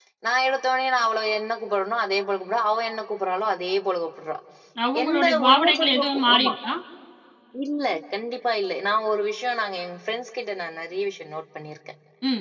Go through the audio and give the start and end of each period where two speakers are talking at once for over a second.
5.0-6.5

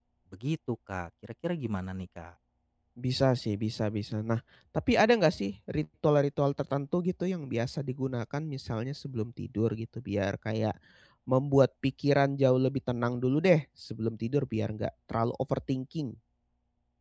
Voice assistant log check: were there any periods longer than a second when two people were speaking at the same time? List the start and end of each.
none

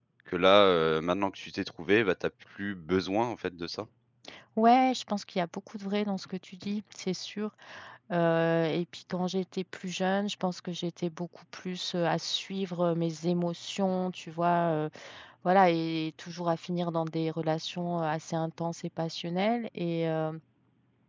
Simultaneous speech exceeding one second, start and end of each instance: none

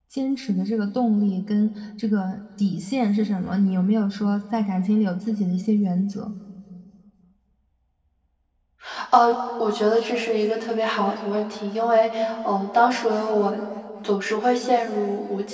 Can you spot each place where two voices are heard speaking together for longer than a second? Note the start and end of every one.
none

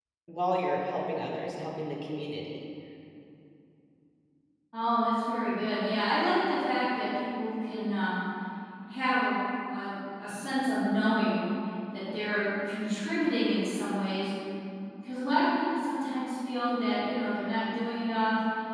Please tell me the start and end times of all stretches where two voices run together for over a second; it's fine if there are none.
none

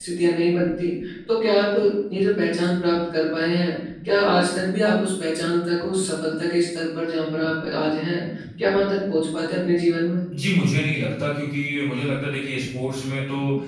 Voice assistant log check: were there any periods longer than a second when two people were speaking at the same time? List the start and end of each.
none

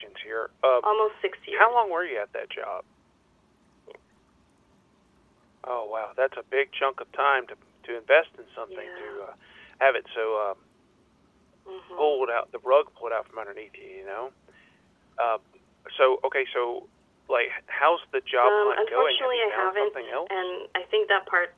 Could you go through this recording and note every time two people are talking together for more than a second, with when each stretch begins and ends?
18.4-20.5

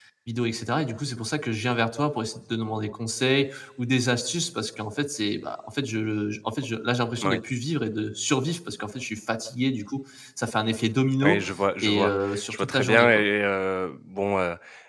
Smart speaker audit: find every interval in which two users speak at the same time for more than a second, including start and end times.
11.8-13.2

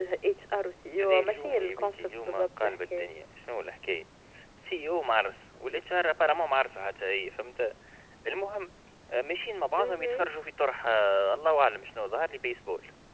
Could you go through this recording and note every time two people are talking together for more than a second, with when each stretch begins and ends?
1.0-3.1

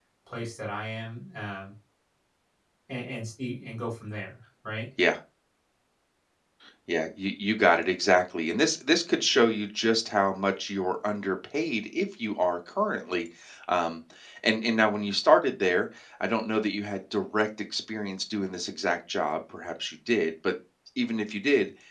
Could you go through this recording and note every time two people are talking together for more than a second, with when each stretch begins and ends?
none

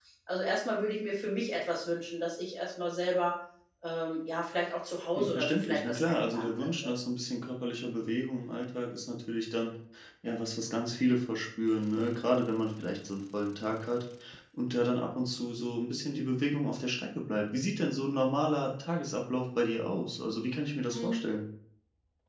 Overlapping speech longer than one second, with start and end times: 5.2-6.9

